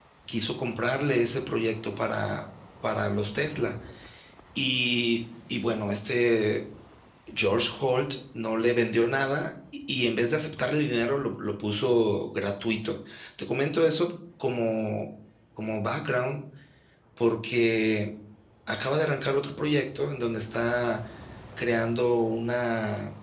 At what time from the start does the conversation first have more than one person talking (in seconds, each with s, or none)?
none